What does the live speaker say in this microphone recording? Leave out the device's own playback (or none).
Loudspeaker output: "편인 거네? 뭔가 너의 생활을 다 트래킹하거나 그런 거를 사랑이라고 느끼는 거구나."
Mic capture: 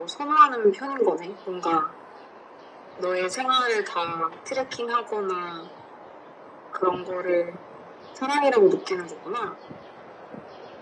none